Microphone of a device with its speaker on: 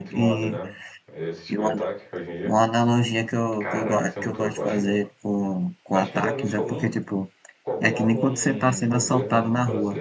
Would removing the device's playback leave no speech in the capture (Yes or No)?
No